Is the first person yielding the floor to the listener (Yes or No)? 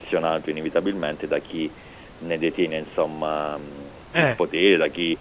No